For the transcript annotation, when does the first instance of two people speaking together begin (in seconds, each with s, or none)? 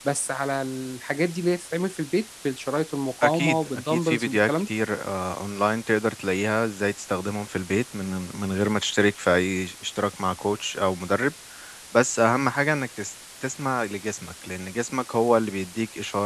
3.2 s